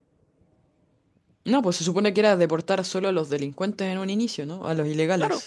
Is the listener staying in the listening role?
No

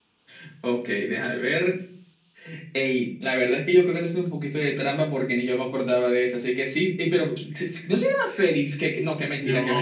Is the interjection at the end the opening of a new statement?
Yes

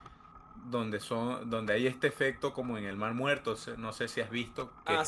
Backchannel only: Yes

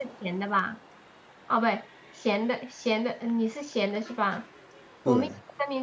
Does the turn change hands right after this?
No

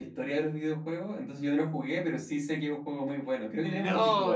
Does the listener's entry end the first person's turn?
Yes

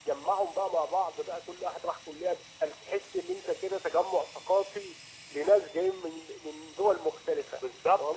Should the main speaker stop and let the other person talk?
Yes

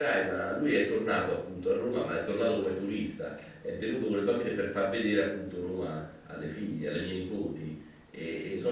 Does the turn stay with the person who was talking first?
Yes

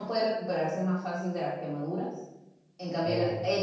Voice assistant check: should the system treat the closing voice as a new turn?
No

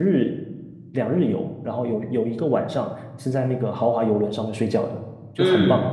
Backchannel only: No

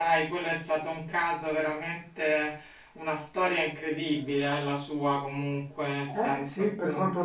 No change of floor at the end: No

